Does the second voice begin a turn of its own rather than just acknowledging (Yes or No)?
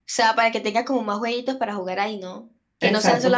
No